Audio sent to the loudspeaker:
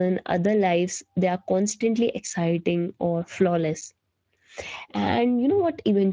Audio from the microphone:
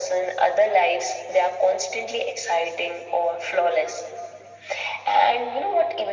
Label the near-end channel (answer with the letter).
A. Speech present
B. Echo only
B